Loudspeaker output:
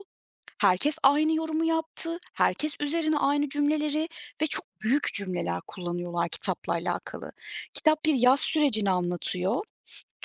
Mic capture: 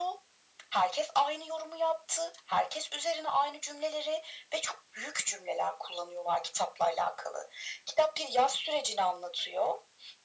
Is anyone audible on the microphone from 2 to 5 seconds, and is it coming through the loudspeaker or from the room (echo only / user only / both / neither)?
echo only